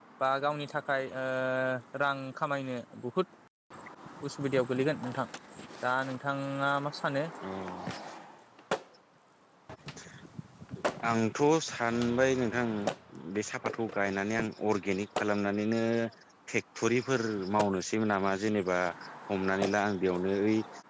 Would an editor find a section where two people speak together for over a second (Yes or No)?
No